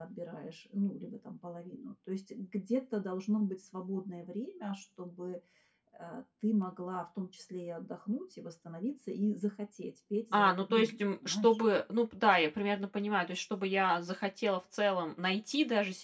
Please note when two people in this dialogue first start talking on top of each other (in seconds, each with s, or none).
10.3 s